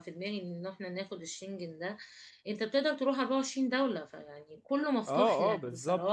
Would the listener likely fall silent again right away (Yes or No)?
No